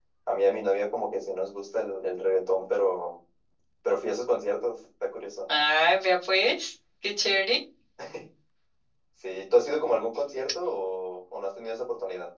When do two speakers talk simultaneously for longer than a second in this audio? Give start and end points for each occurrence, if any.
none

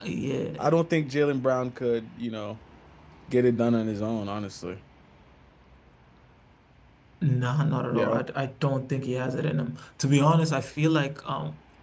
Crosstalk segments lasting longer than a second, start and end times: none

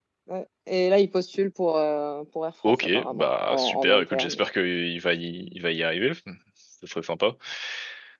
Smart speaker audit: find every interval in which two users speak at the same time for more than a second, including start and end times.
2.7-4.4

